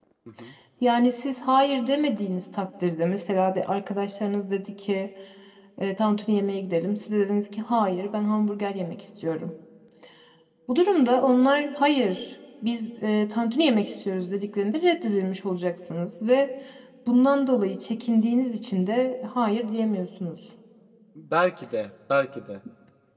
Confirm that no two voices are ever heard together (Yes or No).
Yes